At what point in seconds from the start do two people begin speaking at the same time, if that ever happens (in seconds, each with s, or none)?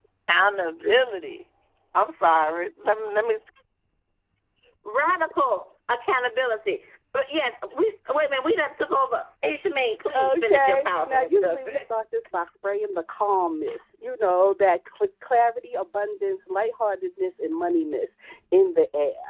10.1 s